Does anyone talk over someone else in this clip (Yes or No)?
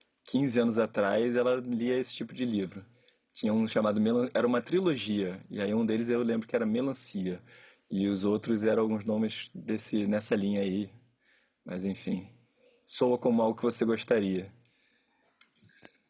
No